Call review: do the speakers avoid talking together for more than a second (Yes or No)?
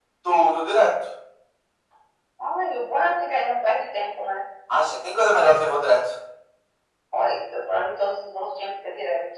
Yes